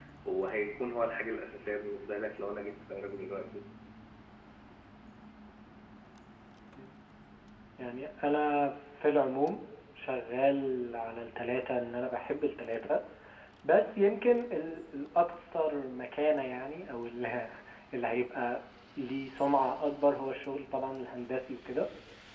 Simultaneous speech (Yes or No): No